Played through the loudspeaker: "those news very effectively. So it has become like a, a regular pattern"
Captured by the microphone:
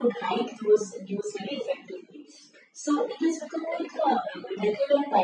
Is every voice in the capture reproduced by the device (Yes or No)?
Yes